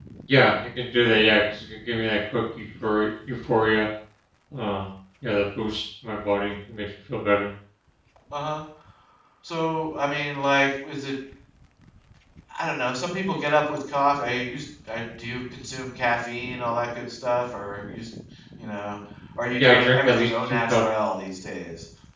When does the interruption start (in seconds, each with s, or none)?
19.6 s